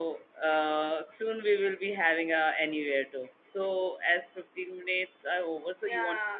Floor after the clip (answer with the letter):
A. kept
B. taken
B